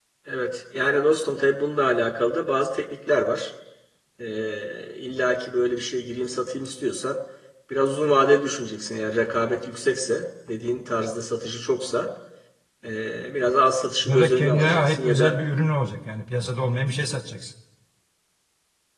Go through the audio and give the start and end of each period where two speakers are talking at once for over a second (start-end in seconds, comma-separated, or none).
14.0-15.4